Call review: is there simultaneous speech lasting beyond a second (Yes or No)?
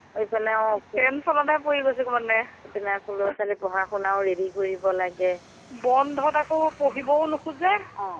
No